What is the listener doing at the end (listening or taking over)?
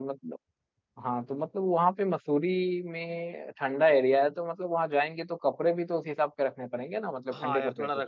taking over